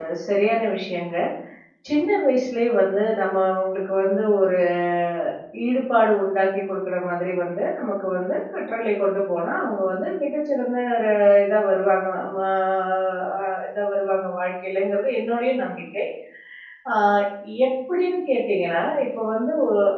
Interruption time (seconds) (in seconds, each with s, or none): none